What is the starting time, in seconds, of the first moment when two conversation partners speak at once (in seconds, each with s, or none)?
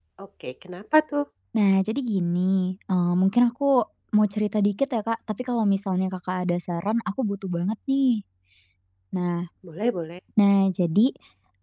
none